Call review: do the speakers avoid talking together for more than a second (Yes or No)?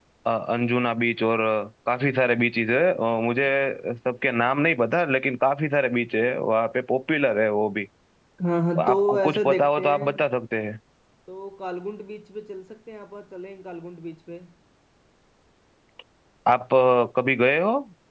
No